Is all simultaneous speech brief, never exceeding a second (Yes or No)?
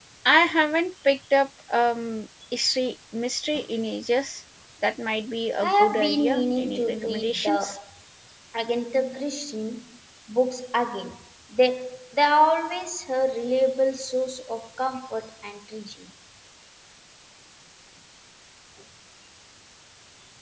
No